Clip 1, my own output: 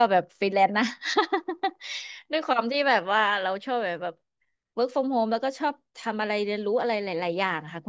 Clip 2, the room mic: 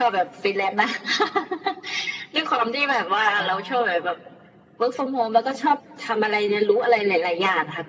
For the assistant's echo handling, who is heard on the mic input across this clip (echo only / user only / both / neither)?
both